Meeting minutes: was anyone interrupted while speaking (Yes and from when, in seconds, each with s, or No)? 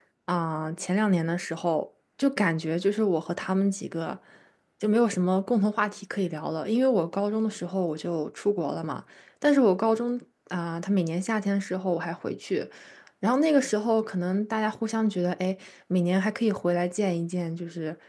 No